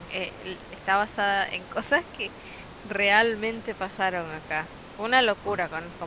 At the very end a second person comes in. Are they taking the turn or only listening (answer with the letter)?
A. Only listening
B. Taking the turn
B